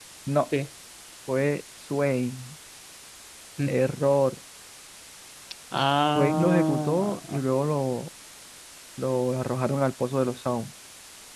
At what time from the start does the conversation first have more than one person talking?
6.2 s

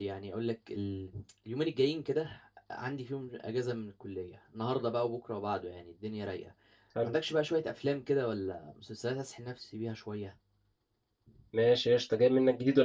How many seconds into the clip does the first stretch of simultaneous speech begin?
none

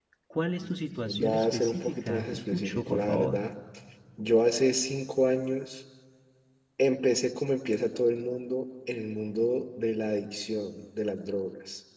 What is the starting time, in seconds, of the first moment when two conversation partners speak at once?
1.0 s

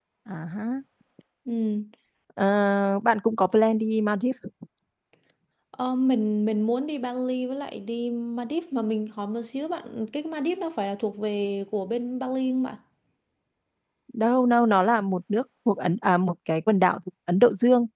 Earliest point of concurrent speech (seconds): none

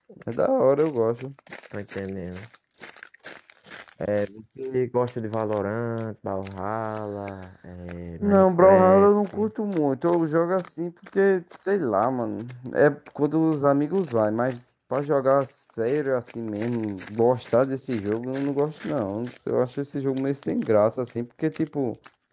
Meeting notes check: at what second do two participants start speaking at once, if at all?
8.2 s

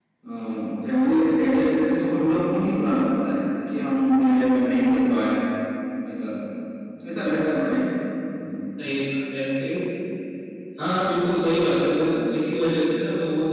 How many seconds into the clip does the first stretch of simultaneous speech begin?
none

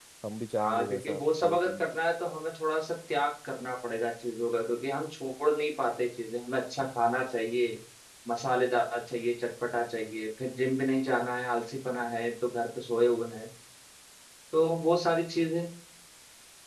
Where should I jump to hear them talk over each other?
0.6 s

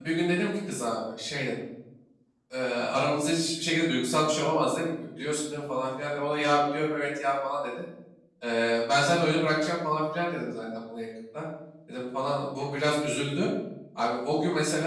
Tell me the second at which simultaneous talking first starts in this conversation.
none

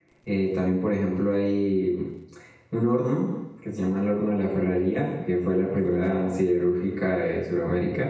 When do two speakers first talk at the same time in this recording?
none

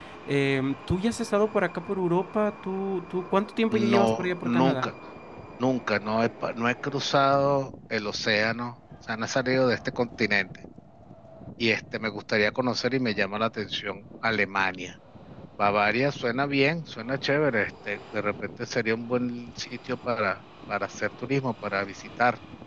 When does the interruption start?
3.7 s

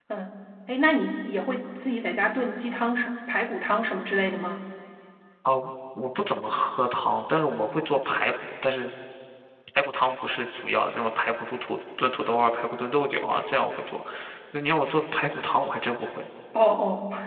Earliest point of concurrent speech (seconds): none

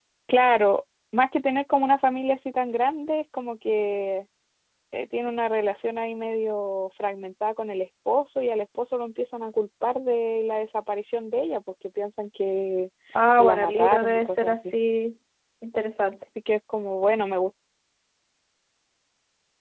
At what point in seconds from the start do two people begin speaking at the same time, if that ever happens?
13.4 s

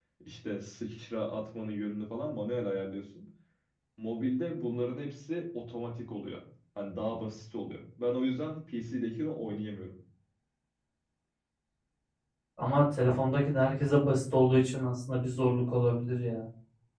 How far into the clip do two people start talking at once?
none

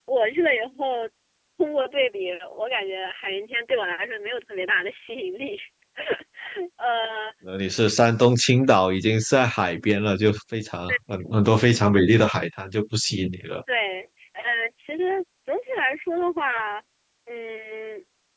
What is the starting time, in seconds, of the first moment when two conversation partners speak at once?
none

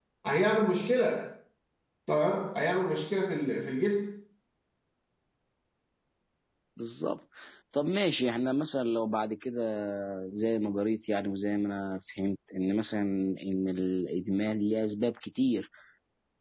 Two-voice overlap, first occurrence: none

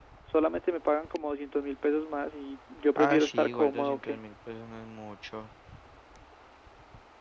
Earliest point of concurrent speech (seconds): 3.0 s

